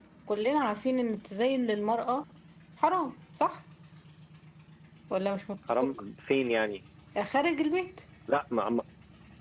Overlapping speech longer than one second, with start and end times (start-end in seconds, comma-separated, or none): none